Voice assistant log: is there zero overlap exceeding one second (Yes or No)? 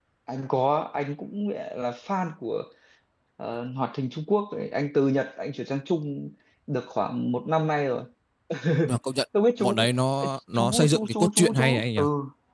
No